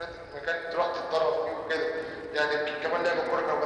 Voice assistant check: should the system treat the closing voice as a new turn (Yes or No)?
No